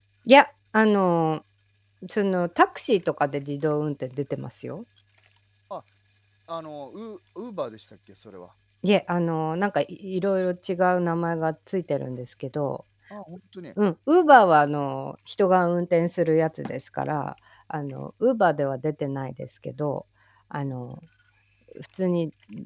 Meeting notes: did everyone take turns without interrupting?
Yes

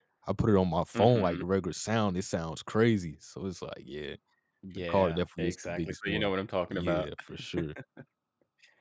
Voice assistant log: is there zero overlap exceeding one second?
No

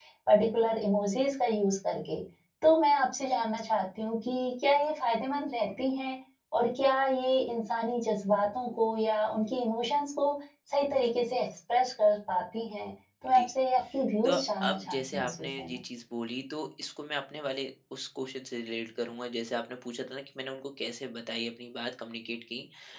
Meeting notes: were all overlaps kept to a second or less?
No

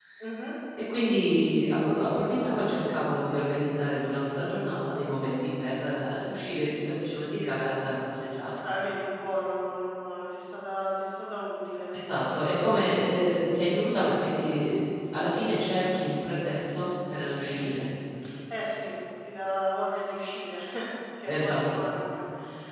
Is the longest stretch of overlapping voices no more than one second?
Yes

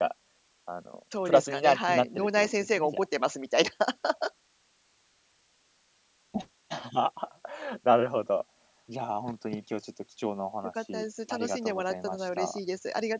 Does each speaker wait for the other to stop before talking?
No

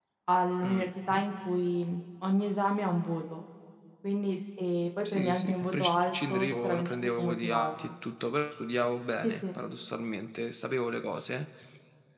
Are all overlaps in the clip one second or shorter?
No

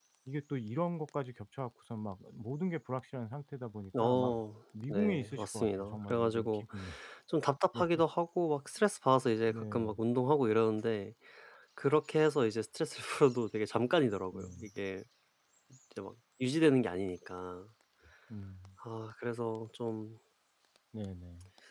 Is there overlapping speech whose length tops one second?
Yes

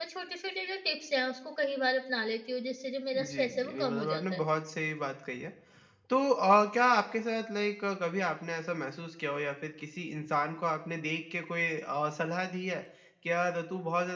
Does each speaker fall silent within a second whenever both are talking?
No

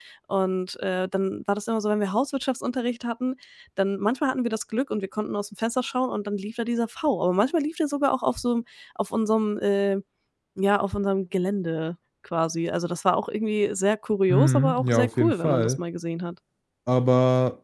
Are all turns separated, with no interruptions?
No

